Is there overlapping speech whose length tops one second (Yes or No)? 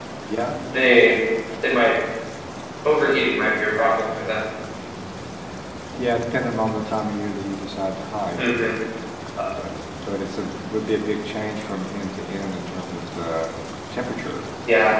No